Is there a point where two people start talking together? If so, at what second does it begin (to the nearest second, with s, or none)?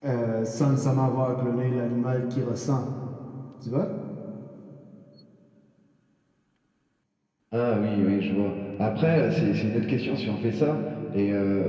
none